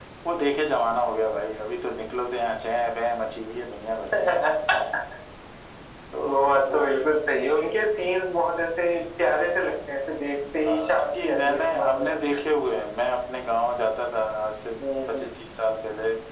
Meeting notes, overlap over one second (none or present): present